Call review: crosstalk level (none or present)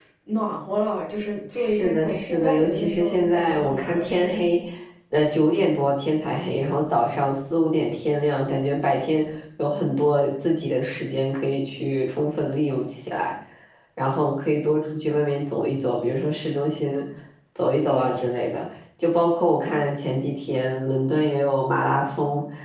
present